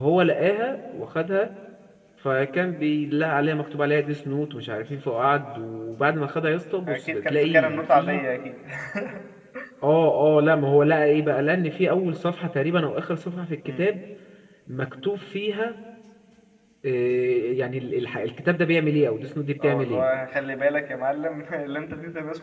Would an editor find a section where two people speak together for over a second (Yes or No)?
Yes